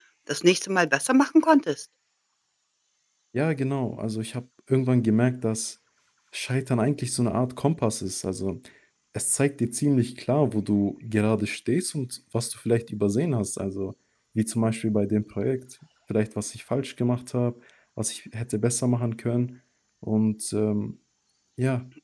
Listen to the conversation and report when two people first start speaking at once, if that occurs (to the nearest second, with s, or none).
none